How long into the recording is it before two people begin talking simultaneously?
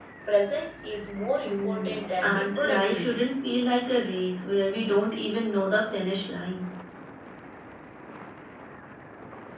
1 s

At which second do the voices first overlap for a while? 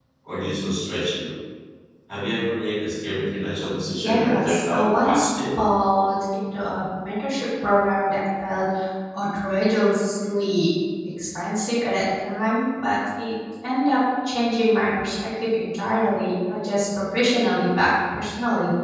4 s

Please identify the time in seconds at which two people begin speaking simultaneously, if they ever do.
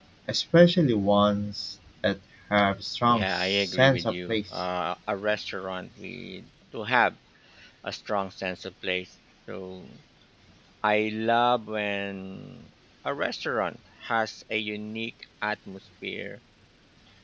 3 s

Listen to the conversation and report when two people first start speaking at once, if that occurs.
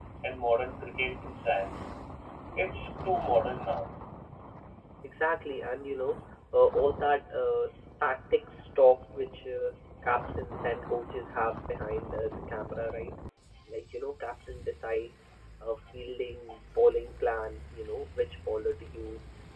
none

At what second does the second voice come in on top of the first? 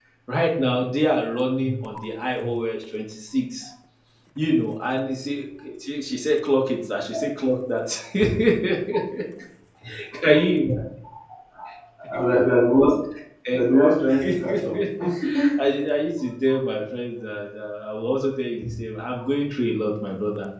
14 s

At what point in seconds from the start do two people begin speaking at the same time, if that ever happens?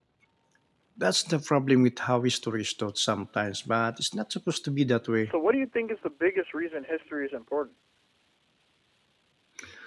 none

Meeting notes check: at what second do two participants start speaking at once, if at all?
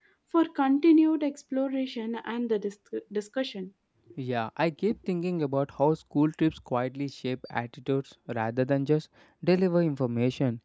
none

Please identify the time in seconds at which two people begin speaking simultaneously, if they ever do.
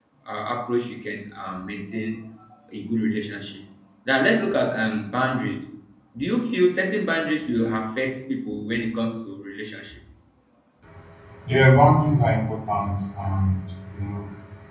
none

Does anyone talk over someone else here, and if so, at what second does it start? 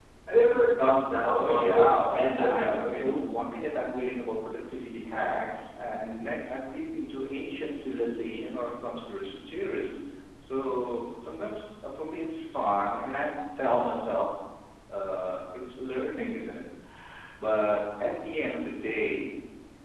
1 s

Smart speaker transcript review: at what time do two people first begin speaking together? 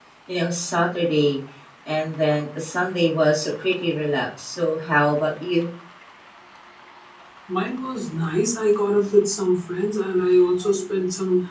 none

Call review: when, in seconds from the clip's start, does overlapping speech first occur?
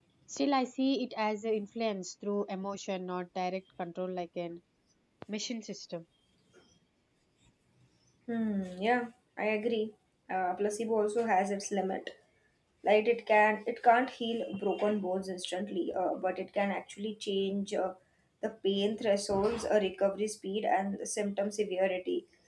none

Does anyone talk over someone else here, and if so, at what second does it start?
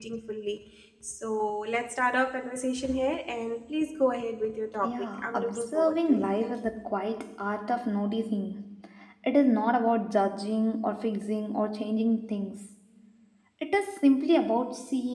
5 s

